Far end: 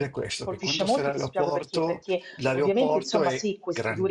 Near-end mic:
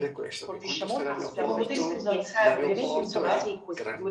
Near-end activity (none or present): present